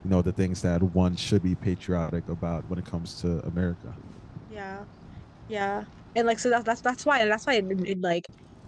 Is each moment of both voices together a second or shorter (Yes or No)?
Yes